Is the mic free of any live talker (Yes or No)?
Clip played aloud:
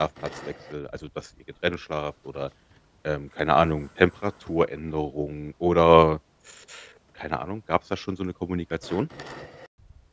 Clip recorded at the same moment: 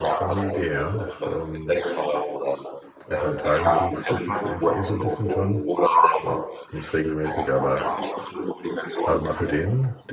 No